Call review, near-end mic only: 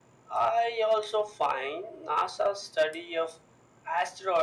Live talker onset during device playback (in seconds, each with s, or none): none